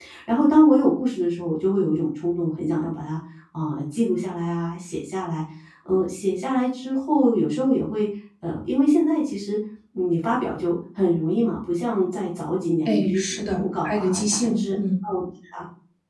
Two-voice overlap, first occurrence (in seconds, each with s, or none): 12.8 s